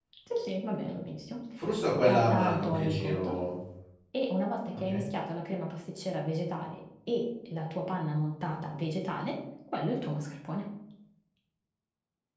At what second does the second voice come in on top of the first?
2.1 s

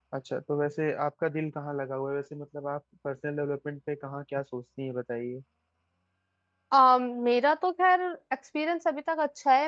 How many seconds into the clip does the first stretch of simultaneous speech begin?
none

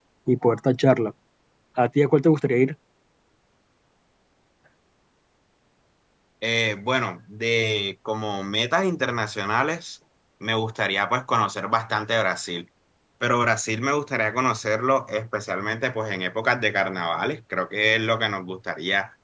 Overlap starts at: none

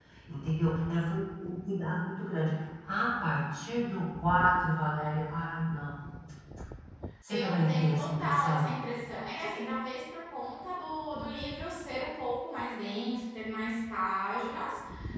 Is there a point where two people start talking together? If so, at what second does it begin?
7.3 s

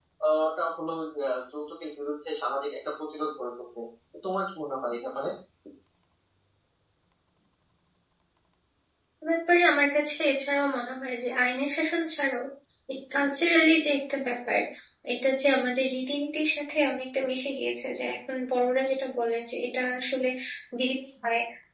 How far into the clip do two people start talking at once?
none

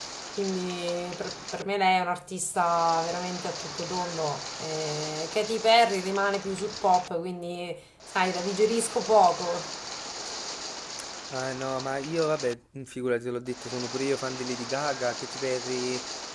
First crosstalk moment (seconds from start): none

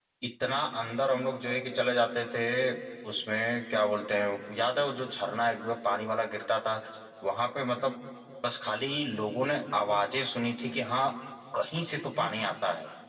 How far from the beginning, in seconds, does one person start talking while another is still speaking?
none

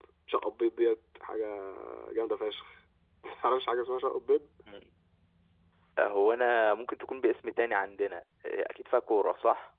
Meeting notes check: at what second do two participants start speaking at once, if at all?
none

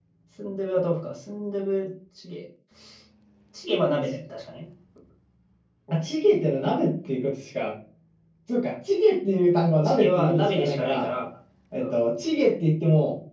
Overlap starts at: 9.8 s

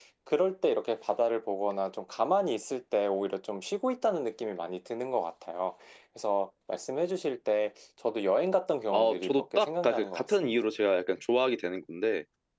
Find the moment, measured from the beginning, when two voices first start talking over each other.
8.9 s

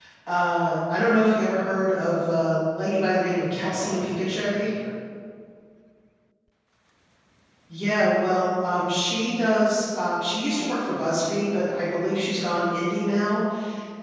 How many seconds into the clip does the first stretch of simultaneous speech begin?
3.5 s

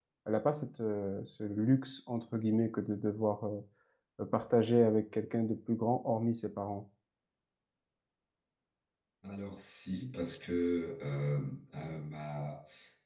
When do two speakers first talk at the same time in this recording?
none

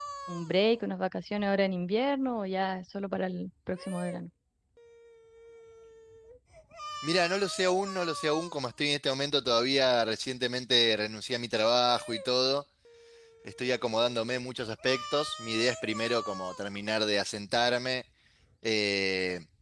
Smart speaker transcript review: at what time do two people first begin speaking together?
none

